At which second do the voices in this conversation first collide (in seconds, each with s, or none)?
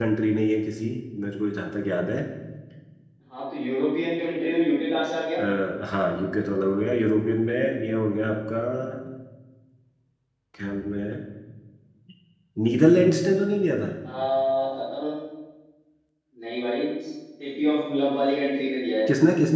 none